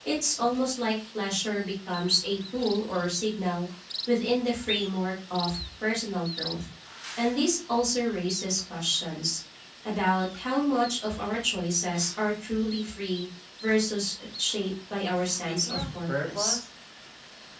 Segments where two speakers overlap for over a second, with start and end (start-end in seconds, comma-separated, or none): 15.2-16.6